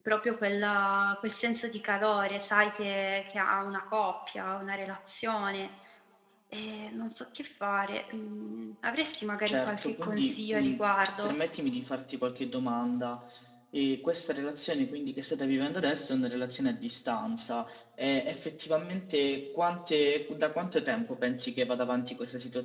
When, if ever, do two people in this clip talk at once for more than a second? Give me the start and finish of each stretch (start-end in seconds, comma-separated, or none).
9.4-10.8